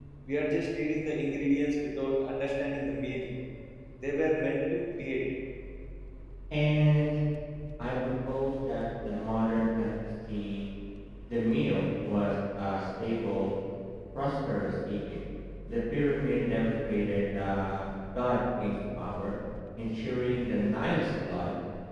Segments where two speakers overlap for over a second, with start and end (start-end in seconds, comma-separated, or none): none